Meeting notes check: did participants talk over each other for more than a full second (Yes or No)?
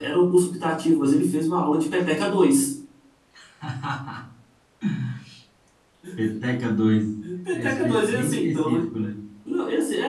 Yes